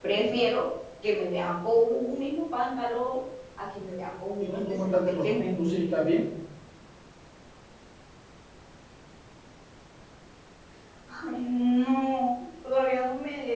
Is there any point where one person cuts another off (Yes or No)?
Yes